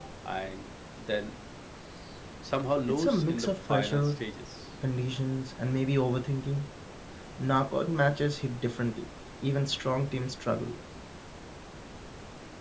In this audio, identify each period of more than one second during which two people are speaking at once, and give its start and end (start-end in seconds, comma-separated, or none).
2.9-4.1